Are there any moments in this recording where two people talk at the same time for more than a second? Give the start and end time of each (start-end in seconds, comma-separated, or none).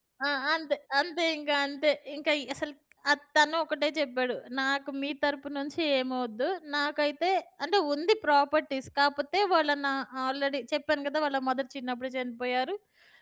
none